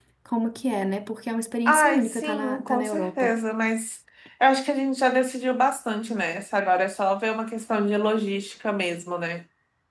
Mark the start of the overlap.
1.7 s

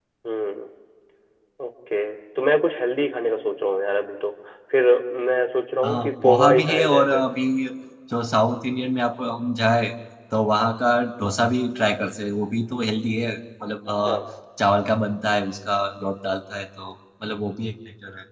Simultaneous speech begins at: 5.8 s

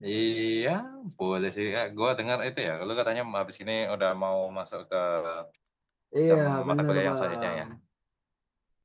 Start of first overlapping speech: 6.3 s

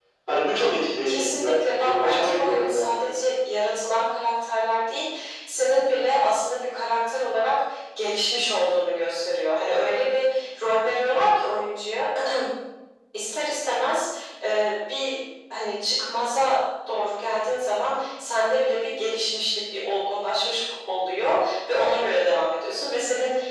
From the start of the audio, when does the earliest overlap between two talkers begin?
1.0 s

